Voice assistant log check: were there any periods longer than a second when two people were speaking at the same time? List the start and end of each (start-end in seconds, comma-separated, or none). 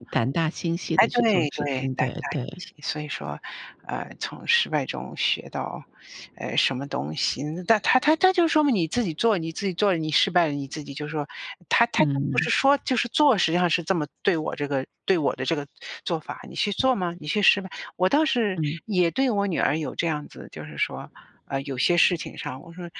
1.0-2.4